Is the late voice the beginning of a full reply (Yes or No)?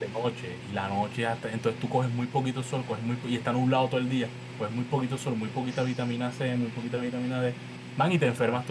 No